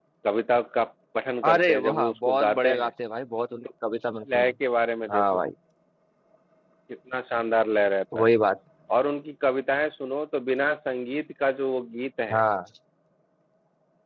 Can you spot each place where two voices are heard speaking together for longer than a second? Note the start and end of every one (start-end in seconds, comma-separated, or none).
1.5-2.9